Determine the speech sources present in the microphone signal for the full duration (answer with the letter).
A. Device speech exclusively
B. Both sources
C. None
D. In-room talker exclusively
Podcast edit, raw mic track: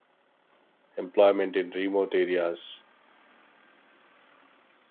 D